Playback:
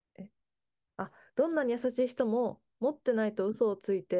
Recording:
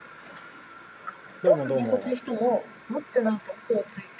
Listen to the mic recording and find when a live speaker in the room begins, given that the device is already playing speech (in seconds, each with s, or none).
1.4 s